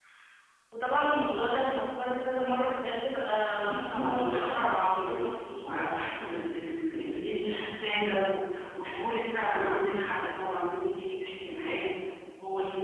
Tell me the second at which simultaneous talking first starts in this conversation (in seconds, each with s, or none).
3.5 s